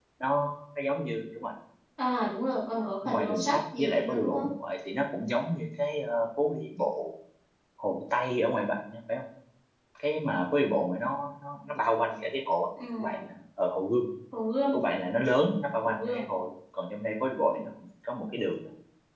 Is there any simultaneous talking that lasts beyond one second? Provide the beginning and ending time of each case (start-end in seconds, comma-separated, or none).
3.0-4.5